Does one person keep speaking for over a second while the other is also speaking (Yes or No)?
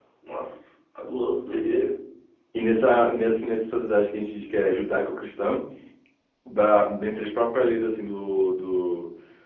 No